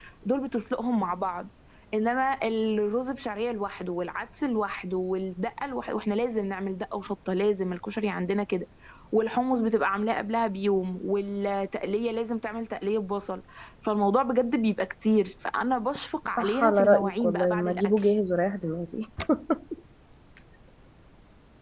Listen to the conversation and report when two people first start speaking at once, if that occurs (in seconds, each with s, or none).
16.4 s